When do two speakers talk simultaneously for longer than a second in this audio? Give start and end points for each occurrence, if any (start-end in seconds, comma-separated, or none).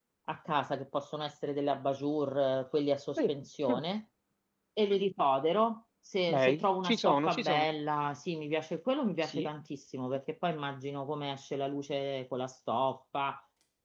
6.3-7.7